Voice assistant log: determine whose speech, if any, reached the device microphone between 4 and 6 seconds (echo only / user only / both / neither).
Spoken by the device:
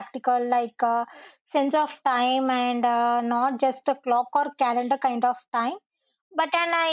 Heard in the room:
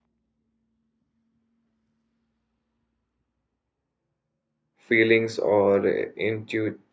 user only